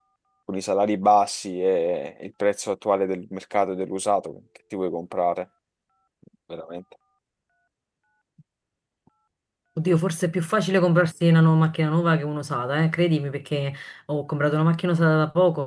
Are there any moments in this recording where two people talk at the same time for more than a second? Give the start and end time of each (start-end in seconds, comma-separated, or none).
none